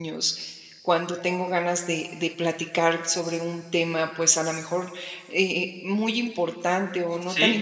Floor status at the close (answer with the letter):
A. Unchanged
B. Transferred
A